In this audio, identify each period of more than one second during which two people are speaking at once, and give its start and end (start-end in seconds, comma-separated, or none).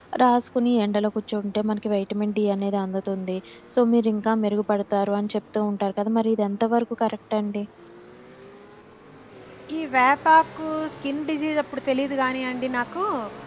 none